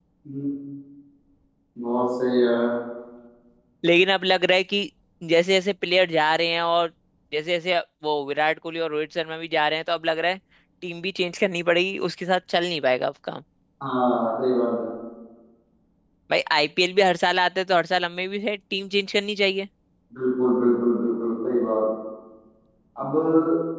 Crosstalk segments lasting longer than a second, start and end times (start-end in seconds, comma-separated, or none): none